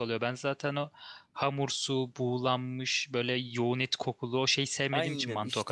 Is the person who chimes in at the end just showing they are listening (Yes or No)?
No